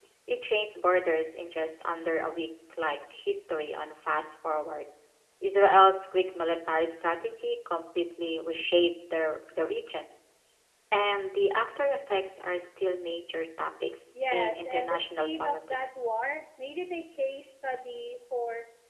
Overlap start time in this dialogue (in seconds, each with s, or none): 14.1 s